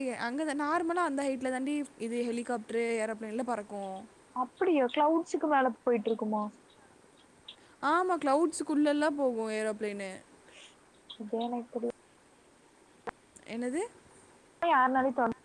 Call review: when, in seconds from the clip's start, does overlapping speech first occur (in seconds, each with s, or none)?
none